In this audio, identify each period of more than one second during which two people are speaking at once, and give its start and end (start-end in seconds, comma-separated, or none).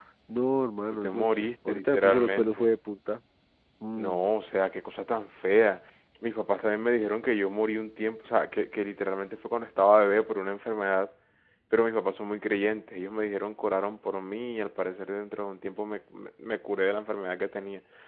1.0-2.7